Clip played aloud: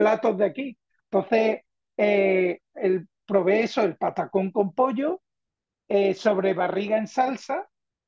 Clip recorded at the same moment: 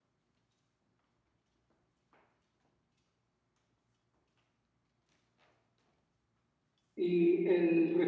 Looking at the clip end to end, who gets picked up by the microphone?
user only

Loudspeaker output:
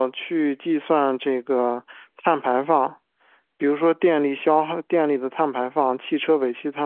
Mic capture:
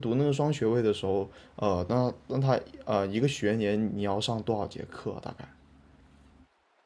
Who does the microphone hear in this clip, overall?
user only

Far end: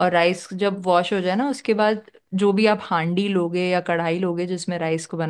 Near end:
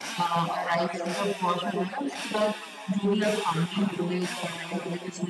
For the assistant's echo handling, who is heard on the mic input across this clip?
echo only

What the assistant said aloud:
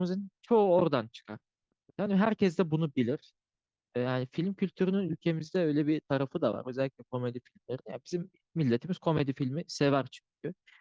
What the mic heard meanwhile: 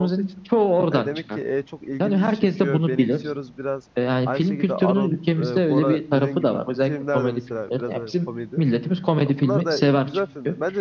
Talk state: both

